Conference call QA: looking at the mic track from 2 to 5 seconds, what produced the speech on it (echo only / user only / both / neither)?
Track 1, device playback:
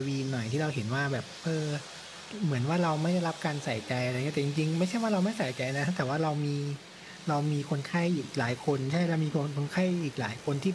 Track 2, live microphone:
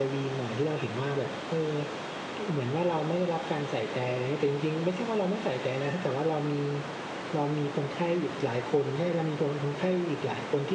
echo only